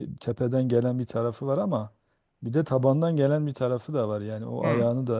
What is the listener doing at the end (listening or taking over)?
listening